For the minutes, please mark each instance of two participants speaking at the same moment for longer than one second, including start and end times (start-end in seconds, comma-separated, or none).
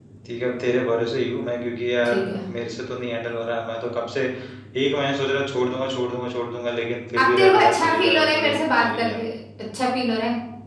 7.2-9.2